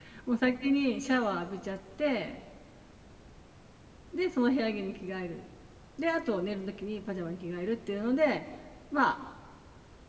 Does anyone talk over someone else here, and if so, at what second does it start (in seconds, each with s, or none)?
none